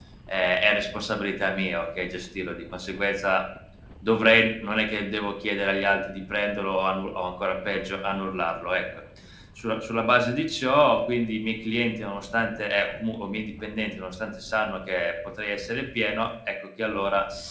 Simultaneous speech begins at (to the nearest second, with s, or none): none